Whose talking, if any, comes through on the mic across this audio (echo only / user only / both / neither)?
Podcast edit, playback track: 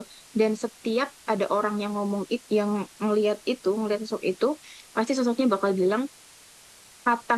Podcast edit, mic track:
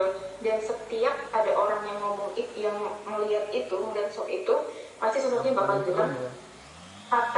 both